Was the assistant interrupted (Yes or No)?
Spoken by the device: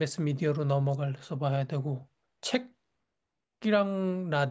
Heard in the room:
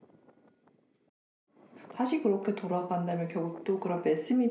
Yes